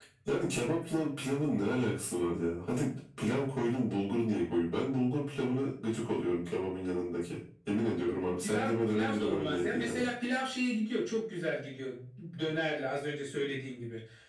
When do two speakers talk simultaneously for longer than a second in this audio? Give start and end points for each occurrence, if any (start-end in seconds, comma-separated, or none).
8.4-10.1